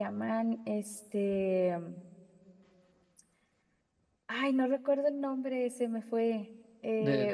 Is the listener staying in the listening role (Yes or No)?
Yes